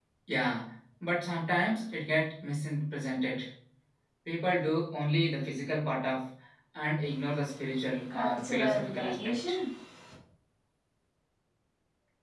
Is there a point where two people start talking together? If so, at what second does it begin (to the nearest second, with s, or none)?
8 s